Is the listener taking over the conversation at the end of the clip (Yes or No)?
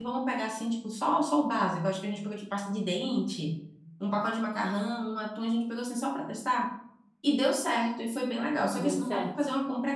No